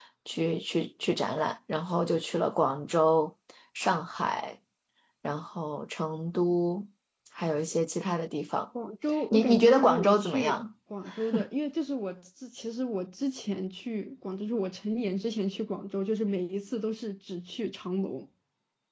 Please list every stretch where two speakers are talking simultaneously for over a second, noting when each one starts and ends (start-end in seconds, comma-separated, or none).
9.3-10.6